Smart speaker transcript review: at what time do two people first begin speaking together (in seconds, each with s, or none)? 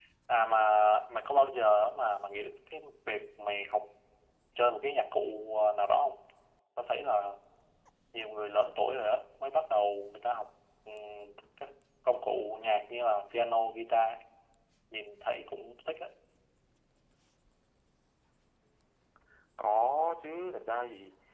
none